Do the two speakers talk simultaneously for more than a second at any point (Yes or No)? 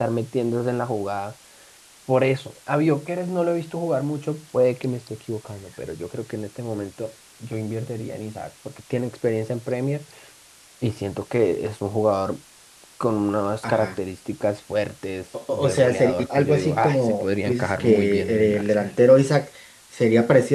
Yes